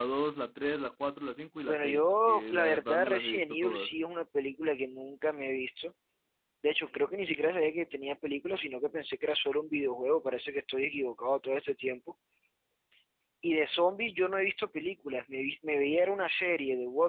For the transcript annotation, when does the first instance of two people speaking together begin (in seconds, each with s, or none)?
1.7 s